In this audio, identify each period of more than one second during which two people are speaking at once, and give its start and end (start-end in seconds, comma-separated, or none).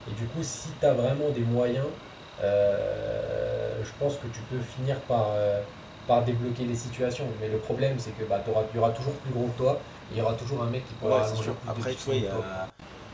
11.0-12.5